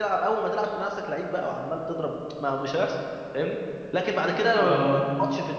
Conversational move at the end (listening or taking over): listening